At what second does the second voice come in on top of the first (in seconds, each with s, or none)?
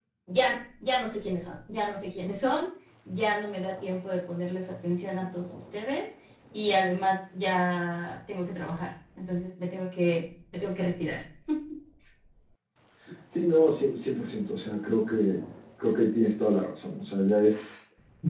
none